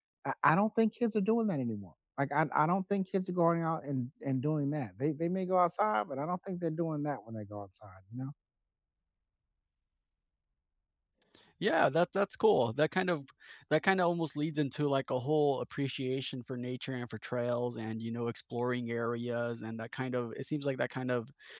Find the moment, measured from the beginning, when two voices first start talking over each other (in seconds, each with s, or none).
none